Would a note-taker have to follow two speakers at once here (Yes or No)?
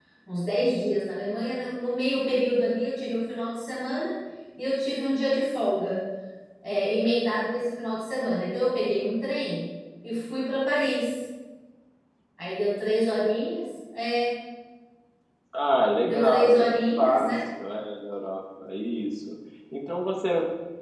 Yes